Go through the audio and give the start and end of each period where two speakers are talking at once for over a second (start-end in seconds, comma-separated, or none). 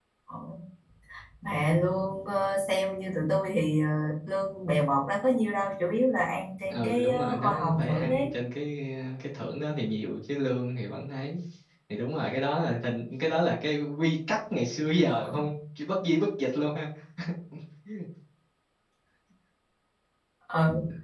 6.7-8.3